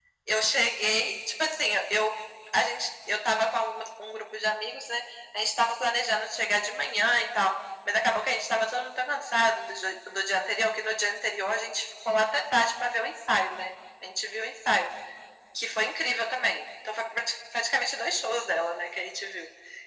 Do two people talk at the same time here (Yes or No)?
No